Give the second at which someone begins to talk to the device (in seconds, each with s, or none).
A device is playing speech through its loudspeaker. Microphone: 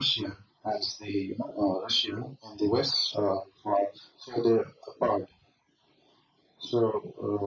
none